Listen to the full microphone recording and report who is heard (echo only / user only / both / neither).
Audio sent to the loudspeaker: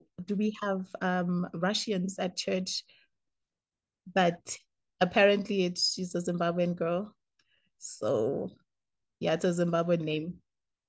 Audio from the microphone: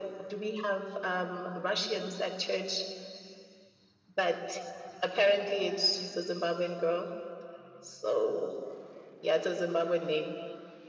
echo only